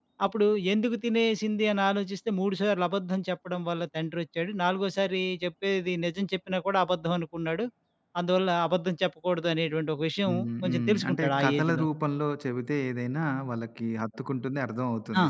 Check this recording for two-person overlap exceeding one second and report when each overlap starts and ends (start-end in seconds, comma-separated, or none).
10.3-11.8